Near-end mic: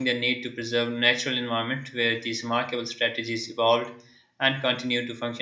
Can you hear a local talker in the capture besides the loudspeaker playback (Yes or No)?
Yes